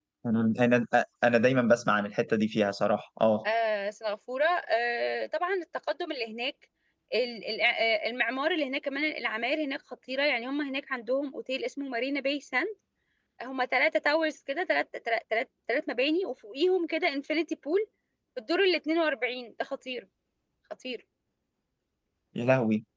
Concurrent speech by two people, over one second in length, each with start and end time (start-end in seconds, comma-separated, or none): none